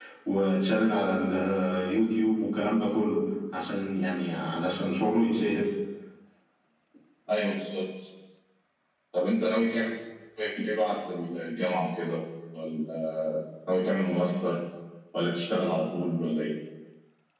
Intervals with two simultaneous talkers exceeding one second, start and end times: none

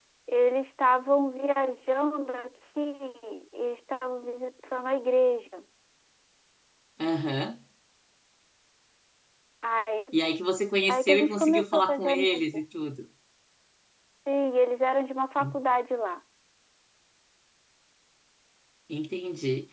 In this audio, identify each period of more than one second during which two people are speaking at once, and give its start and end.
10.9-12.4

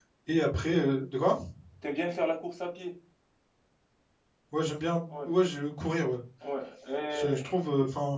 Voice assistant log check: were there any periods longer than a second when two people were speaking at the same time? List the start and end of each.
none

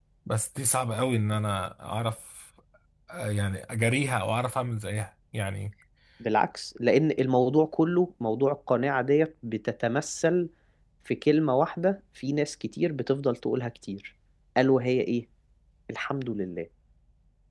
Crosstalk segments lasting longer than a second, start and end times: none

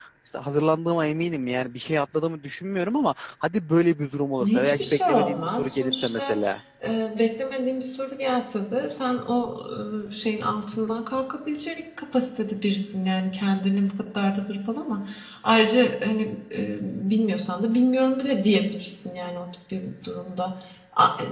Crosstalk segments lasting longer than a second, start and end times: 4.4-6.4

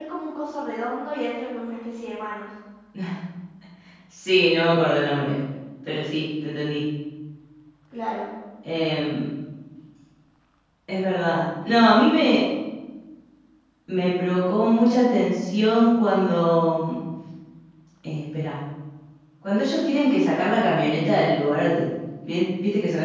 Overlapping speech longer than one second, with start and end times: none

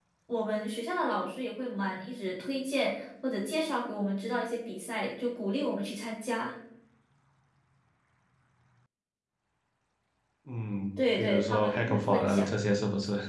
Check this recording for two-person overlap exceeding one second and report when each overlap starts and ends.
11.2-12.5

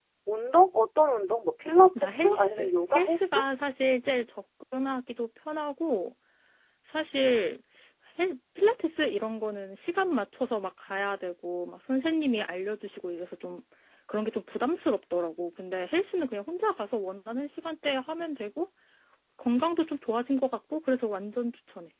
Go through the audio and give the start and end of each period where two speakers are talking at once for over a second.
1.9-3.4

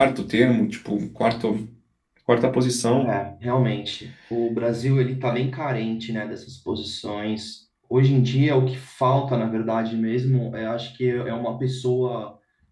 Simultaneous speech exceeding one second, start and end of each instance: none

